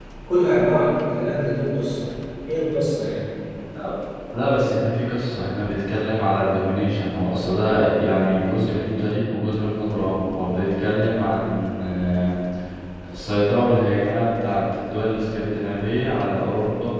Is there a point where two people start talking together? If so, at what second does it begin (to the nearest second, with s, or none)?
none